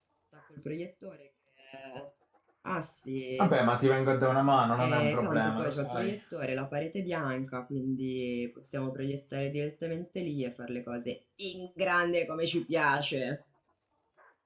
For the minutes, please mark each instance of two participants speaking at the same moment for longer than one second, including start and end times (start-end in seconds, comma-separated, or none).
4.9-6.1